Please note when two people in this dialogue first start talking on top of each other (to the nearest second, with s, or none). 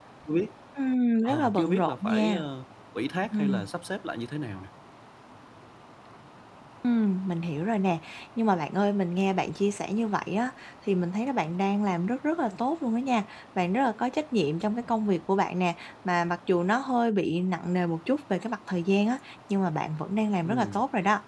1 s